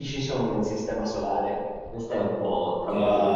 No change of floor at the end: No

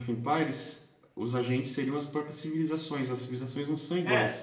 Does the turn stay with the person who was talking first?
No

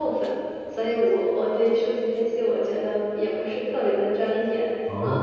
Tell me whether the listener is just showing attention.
Yes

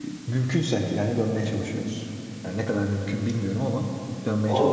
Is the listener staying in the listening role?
No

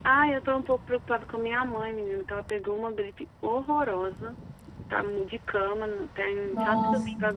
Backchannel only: Yes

